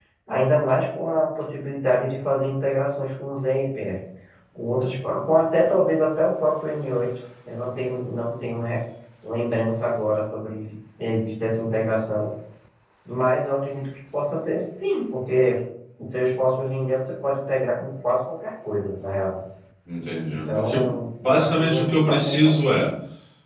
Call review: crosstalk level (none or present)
present